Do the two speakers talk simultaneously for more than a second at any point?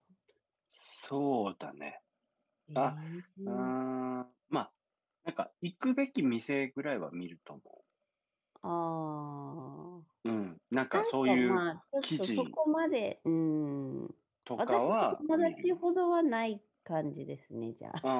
Yes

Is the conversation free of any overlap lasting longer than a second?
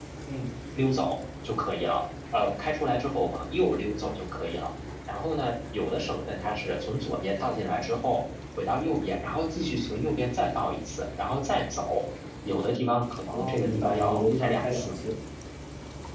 No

